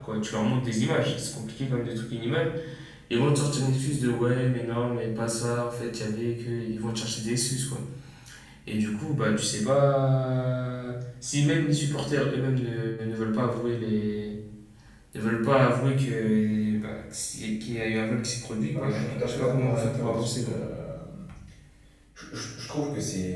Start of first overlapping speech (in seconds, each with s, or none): 18.7 s